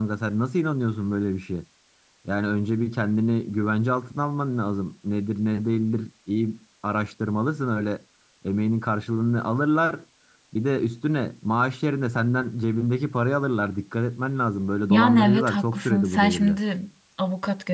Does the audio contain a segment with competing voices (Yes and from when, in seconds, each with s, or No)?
Yes, from 14.9 s